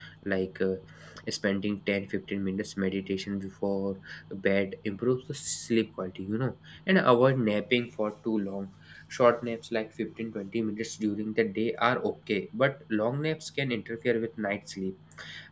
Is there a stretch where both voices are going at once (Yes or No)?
No